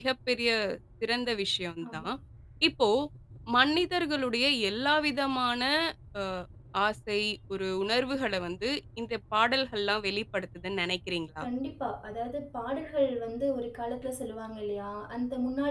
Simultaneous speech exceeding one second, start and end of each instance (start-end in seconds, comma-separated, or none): none